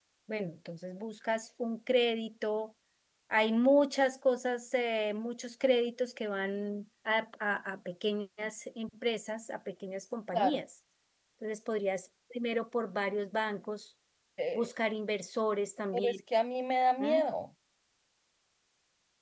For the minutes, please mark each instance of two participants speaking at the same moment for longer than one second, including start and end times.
none

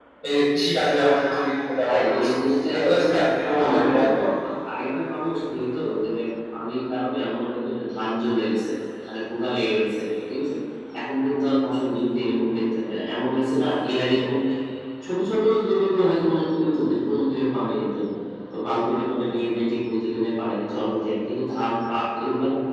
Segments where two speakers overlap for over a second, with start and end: 2.7-4.2

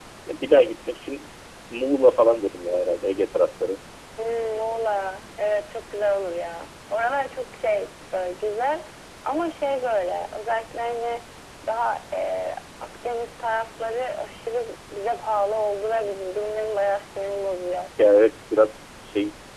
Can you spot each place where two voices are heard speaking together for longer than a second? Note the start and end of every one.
none

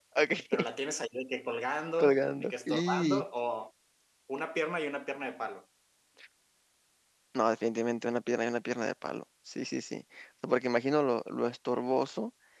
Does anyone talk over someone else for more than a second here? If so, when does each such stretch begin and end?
2.0-3.2

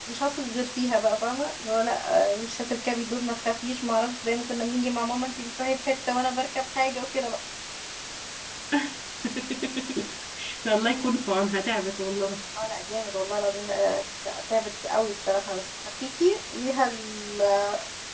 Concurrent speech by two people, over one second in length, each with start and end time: none

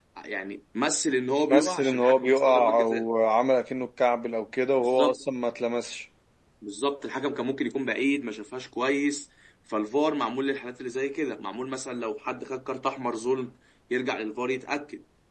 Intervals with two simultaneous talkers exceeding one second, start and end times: 1.4-3.1

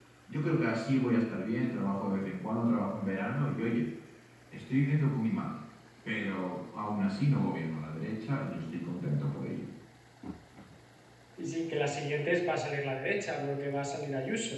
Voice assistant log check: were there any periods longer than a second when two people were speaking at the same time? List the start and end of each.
none

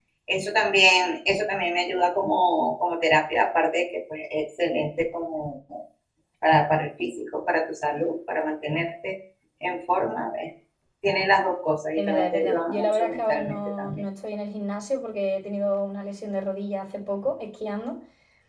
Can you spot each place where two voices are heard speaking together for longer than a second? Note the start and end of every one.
12.0-14.0

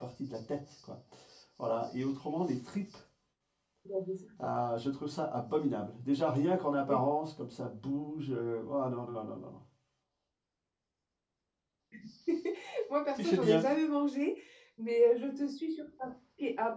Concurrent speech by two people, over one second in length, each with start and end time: none

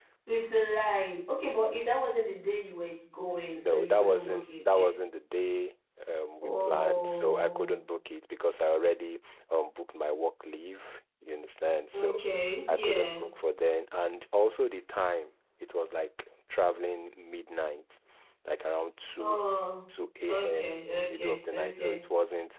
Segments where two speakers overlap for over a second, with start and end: 3.6-4.9, 6.4-7.8, 20.3-22.0

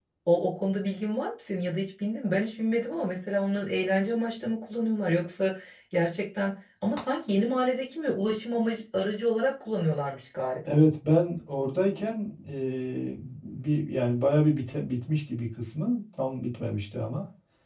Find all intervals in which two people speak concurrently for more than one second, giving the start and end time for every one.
none

